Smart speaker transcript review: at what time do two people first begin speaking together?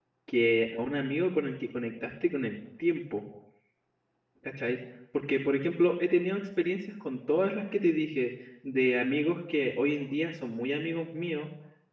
none

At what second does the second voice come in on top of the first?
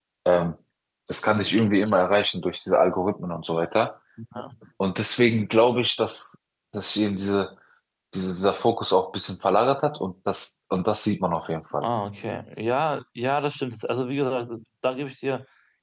none

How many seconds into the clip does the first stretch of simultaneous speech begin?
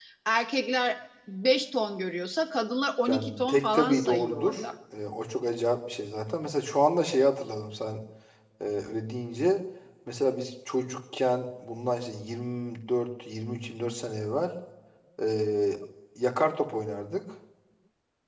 3.1 s

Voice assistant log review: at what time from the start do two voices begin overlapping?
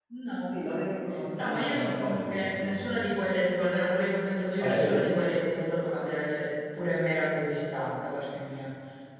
1.3 s

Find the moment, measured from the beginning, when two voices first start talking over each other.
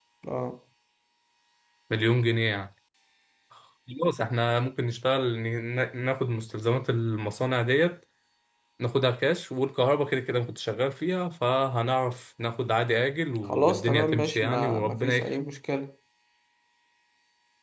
13.4 s

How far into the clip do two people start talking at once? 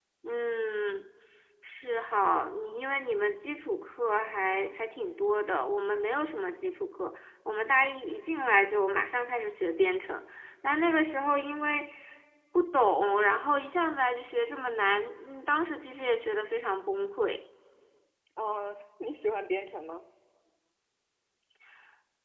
none

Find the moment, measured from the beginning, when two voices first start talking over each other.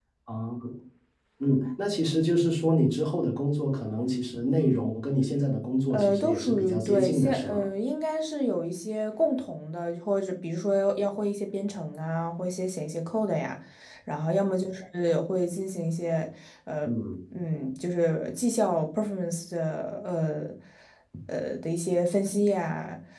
5.9 s

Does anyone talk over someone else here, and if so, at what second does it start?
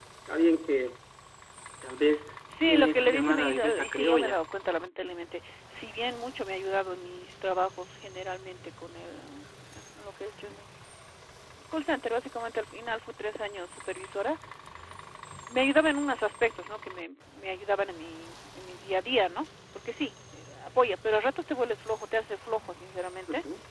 2.7 s

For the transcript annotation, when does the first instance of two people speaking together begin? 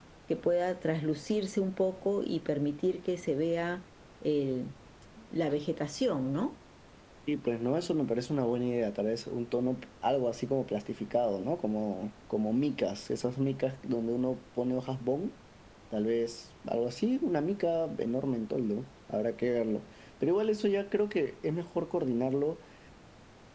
none

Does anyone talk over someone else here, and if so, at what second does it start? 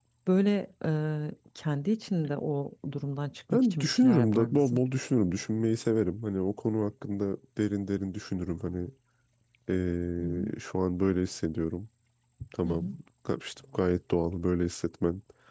3.5 s

